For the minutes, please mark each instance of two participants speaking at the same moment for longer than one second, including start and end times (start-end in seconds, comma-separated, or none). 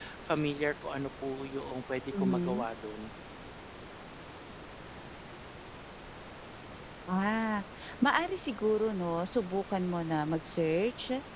none